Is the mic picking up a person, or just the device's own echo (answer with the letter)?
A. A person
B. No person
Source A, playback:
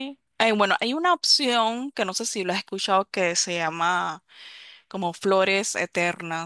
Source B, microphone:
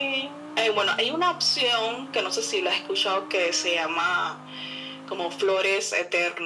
B